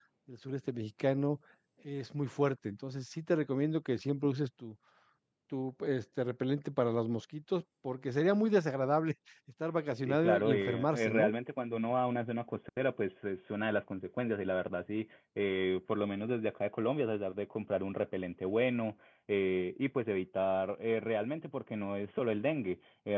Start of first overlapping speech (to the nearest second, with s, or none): 10 s